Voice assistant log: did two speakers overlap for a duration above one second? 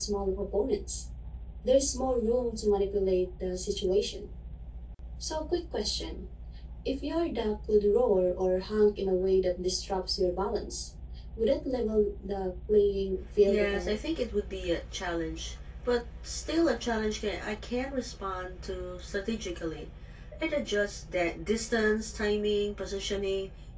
No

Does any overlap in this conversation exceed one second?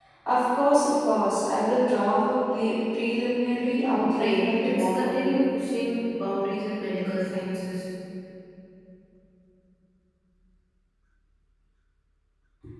Yes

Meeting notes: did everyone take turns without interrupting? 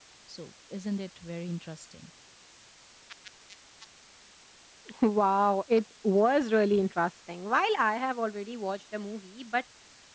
Yes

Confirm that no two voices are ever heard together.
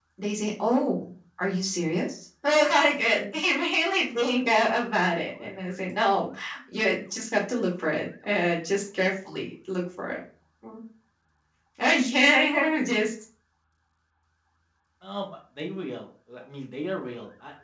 Yes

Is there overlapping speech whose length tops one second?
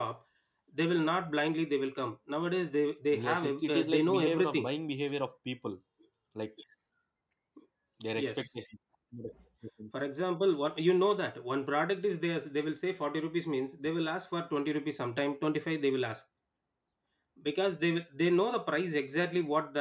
Yes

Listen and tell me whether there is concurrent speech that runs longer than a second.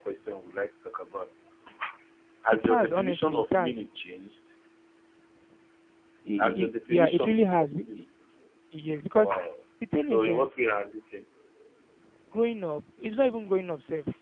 Yes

